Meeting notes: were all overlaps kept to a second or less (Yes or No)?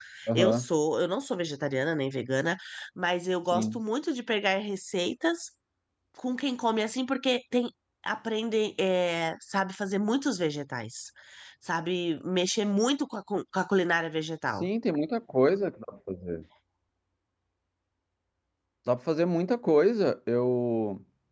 Yes